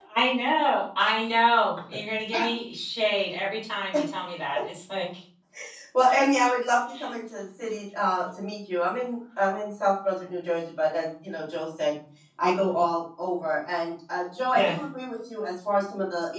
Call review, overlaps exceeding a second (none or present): none